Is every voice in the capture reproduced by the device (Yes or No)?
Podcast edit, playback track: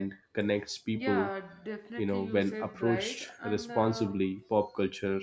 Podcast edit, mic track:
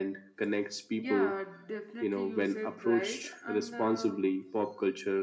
Yes